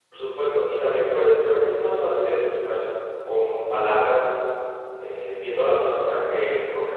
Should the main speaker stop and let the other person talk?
No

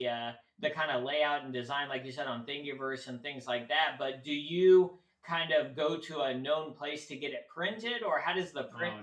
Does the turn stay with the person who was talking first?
No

